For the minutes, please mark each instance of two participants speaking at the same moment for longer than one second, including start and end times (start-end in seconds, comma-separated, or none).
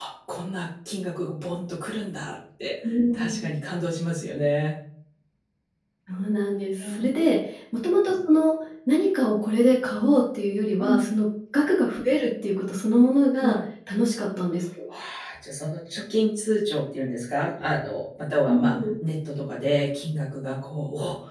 none